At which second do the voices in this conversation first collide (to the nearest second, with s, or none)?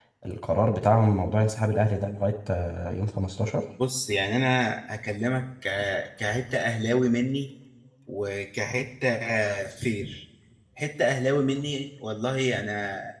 none